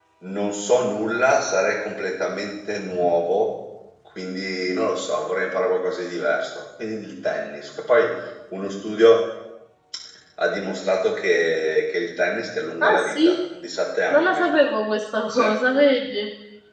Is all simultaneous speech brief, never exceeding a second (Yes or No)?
Yes